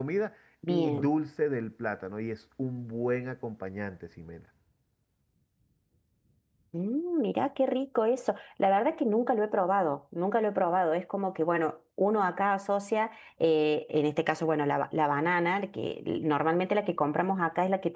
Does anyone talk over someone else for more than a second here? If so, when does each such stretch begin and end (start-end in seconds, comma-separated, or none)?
none